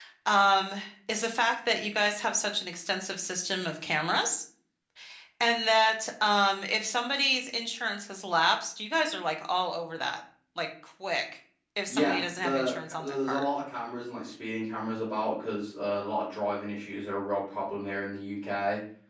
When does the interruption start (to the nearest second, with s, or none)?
12 s